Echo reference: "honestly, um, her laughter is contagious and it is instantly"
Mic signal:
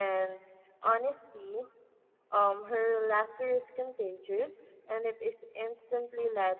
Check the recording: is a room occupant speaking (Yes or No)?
No